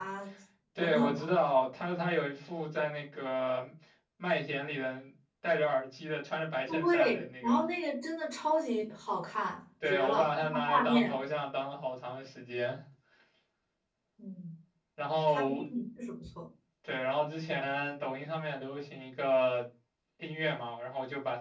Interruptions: present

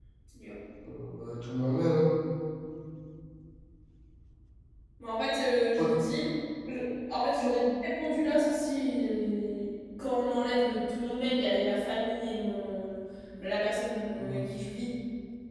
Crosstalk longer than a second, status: none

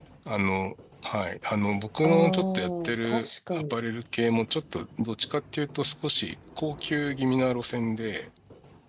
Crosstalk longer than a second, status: present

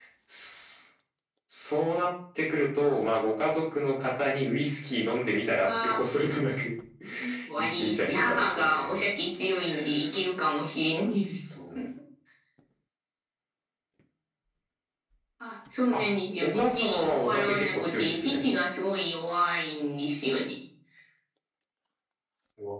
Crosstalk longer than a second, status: present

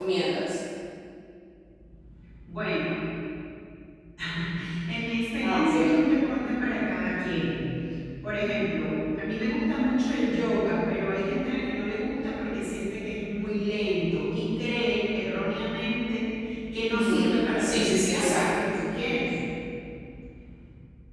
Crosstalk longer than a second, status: present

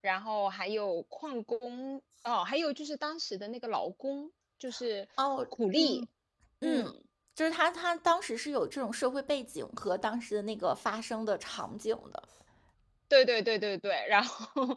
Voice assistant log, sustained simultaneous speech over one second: none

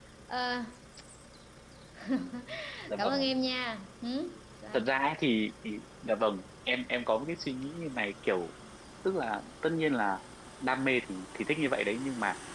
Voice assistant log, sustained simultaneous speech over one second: none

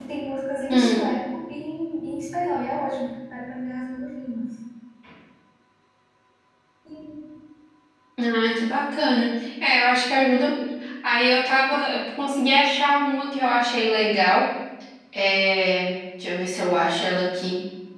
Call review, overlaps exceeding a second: none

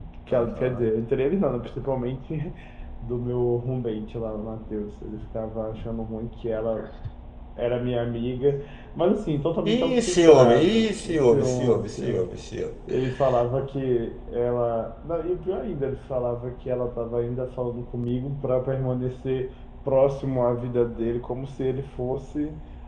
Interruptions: present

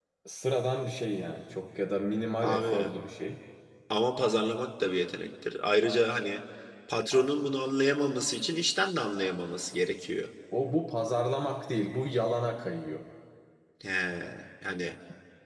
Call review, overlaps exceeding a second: none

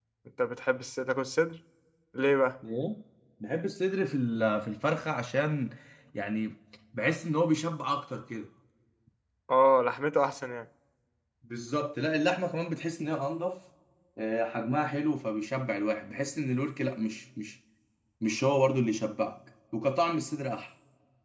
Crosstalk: none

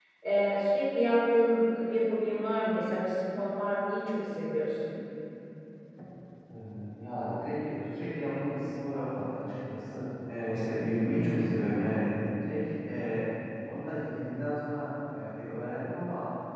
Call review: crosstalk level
none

